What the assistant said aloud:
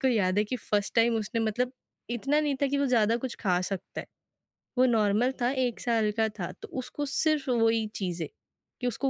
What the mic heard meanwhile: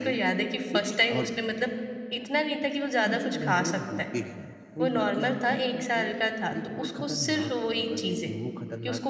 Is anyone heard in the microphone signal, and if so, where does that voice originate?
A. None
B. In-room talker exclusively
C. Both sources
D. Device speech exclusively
C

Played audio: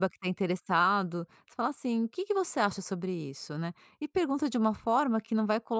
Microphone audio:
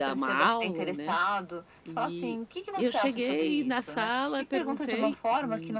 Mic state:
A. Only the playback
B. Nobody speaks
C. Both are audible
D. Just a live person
C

